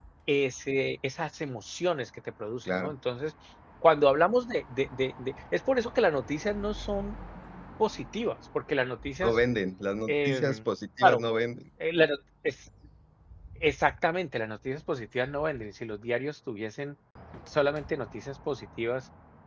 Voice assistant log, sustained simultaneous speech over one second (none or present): none